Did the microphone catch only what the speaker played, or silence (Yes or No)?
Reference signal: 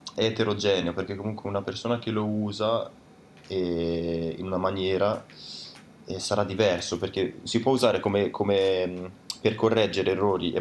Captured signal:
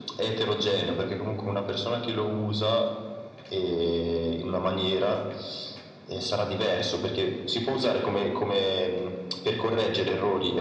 Yes